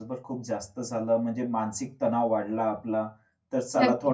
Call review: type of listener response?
listening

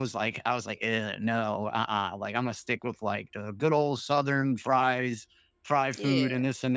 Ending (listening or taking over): listening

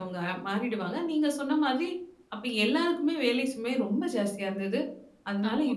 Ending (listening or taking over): listening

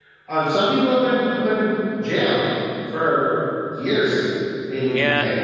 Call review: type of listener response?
taking over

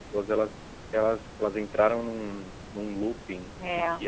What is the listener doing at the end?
listening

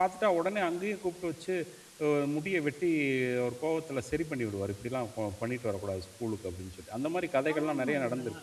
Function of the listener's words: taking over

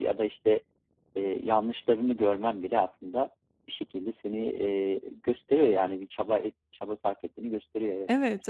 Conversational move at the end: taking over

